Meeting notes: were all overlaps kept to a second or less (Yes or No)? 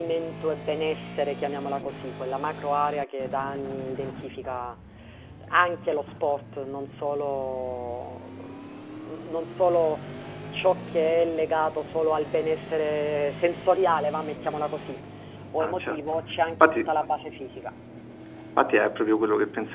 Yes